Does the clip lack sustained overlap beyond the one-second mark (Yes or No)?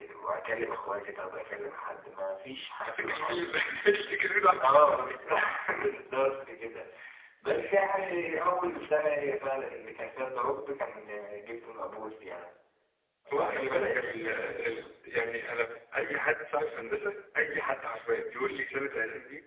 No